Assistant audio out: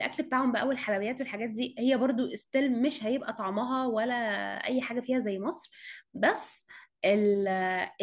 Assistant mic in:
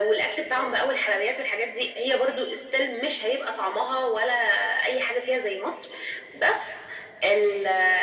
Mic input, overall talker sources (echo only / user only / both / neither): echo only